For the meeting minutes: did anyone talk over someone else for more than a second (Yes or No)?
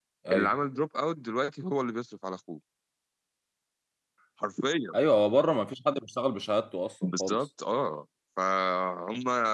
No